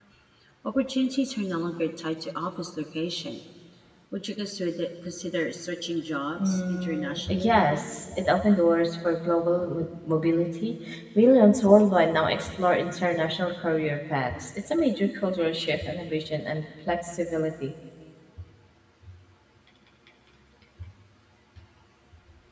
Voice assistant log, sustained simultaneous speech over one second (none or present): present